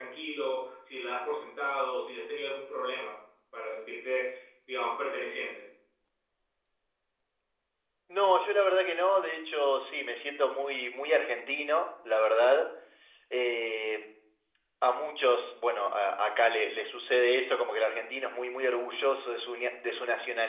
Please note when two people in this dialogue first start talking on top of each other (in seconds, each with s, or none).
none